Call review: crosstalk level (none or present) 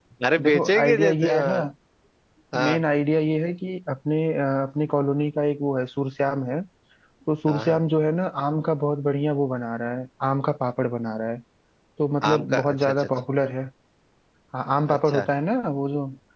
present